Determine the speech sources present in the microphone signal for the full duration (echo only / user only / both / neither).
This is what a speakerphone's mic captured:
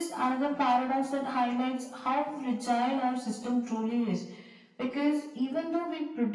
echo only